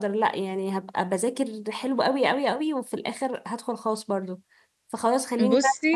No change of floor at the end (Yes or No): Yes